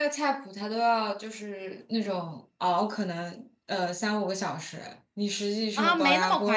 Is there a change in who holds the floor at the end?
Yes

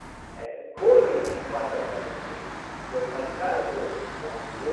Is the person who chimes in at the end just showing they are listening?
Yes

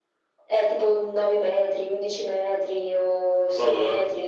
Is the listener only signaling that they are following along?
No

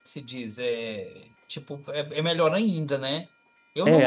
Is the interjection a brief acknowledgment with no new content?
No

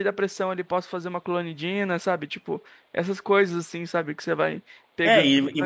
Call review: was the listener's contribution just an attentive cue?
No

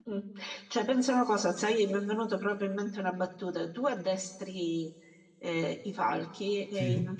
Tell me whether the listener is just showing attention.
Yes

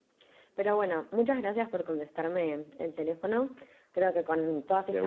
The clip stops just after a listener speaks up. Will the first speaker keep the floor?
Yes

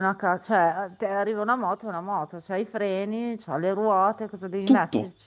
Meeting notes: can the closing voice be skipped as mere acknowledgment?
No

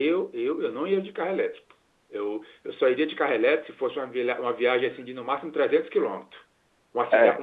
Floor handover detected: No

